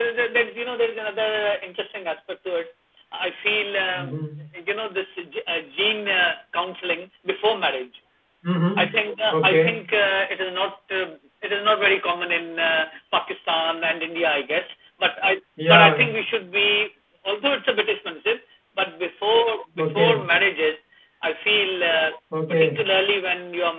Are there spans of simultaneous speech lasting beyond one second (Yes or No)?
No